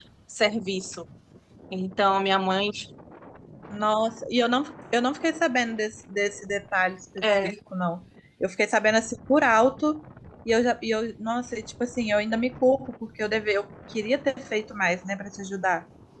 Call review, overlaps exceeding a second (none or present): none